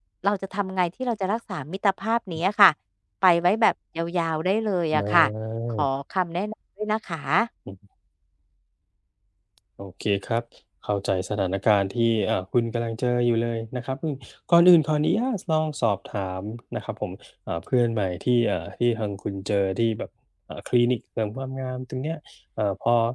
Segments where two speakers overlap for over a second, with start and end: none

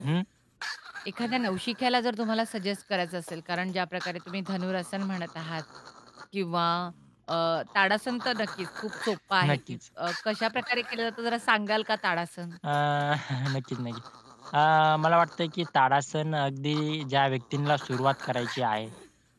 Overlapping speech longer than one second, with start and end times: none

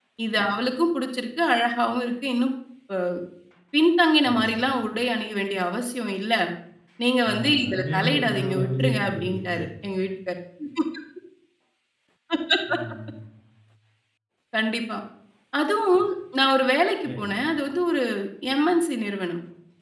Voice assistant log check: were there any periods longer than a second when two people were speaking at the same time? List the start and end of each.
7.3-9.6

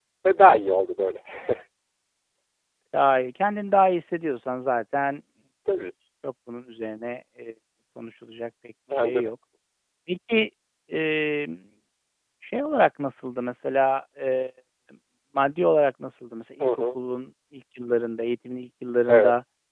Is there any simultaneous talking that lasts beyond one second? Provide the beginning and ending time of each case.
none

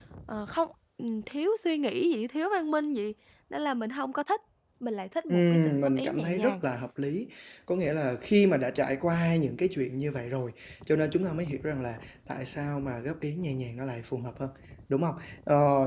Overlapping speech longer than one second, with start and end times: 5.3-6.5

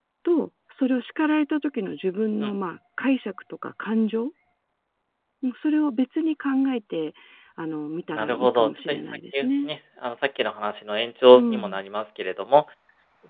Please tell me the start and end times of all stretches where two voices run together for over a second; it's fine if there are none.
8.2-9.7

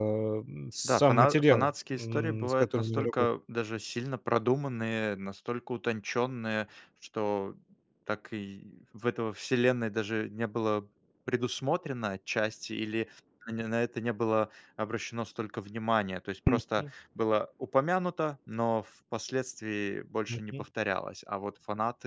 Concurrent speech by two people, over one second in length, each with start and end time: 0.8-3.3

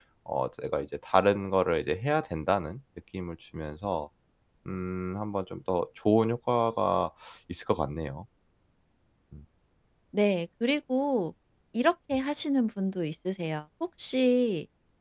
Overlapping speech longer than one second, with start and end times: none

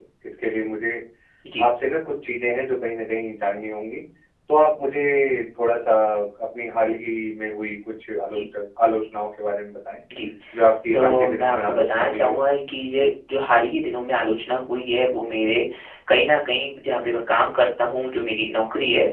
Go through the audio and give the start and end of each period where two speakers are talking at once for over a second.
10.9-12.4

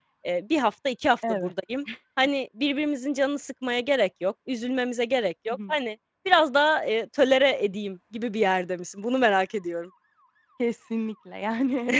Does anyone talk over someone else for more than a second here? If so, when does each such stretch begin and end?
none

